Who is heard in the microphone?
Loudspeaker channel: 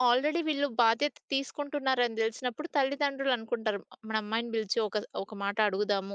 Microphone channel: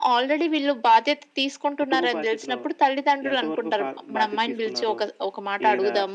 both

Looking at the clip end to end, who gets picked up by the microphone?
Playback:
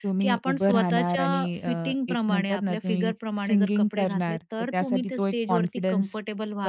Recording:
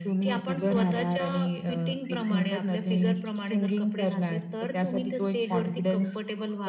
echo only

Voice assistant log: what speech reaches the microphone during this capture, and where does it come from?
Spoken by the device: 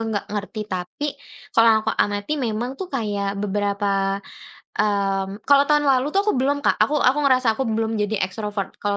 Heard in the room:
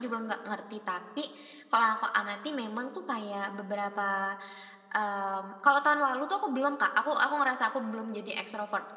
echo only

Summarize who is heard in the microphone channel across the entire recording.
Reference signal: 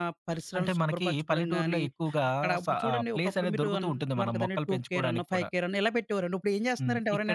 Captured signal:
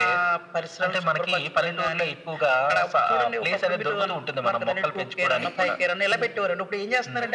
both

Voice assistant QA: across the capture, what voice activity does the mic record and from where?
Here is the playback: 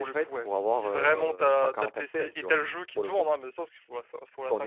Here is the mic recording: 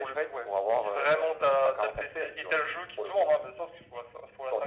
echo only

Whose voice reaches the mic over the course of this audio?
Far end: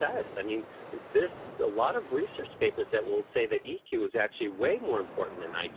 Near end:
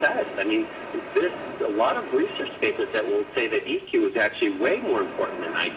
echo only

